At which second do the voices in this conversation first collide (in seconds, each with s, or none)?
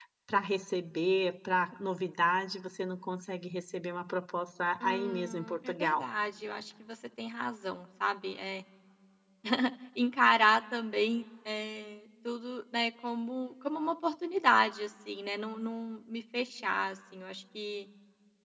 4.8 s